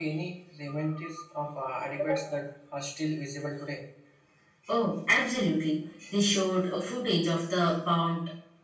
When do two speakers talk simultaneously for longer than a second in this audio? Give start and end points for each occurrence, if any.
none

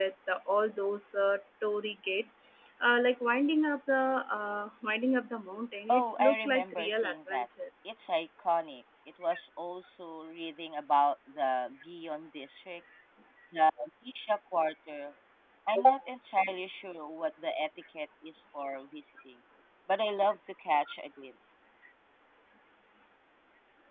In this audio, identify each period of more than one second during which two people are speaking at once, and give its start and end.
5.9-7.4

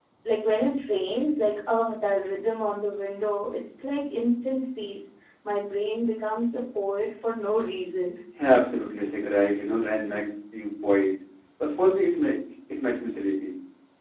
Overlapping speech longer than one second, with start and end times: none

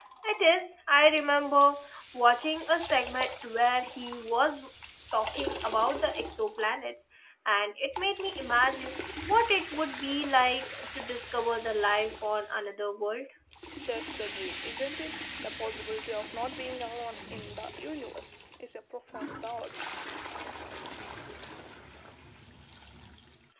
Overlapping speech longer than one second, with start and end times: none

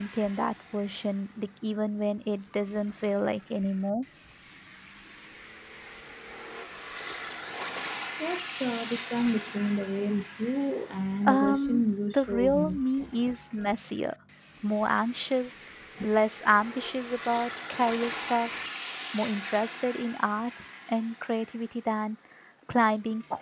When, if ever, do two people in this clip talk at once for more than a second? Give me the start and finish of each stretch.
11.2-12.8

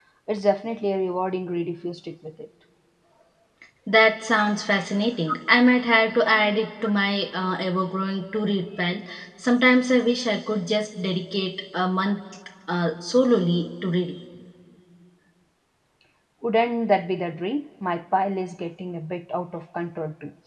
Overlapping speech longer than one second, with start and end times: none

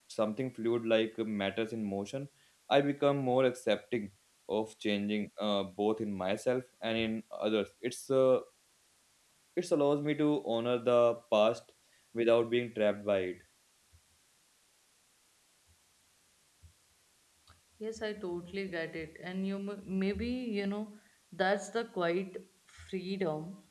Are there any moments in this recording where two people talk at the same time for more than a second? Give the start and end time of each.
none

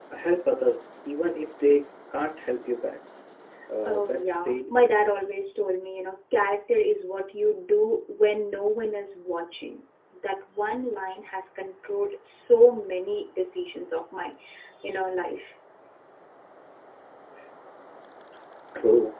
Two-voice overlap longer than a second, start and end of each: 3.9-5.1

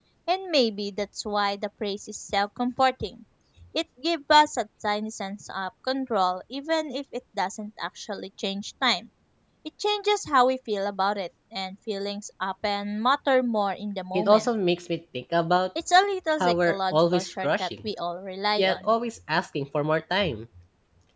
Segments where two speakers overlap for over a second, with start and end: 16.4-17.9

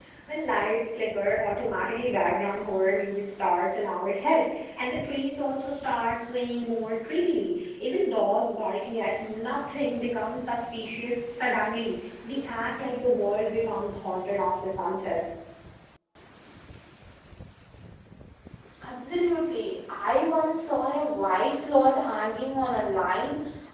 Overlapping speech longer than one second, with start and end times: none

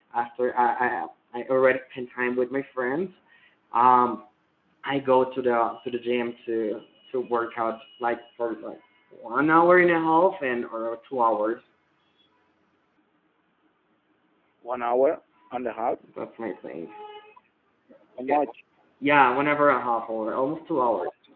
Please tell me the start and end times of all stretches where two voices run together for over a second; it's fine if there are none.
none

